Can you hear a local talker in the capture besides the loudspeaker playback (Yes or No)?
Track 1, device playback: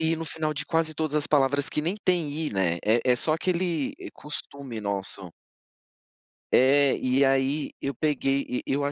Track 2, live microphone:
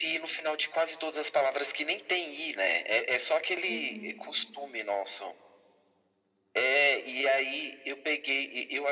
Yes